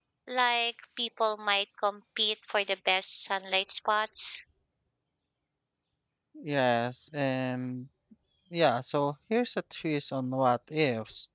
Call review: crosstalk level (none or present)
none